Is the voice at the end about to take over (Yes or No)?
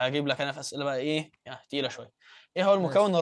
No